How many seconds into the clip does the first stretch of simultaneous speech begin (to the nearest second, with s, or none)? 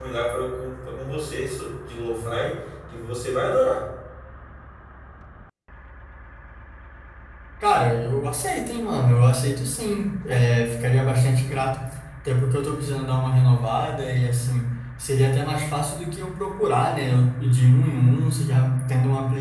none